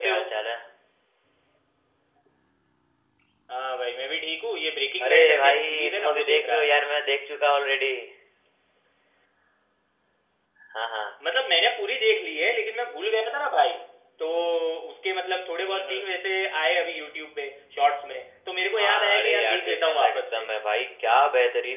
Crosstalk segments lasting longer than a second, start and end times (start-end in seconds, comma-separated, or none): 5.1-6.8, 18.7-20.4